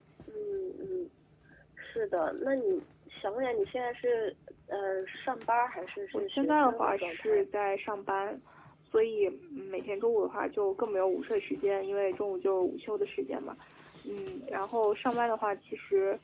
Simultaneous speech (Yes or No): Yes